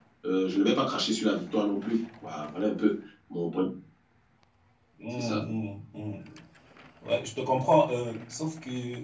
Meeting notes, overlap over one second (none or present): none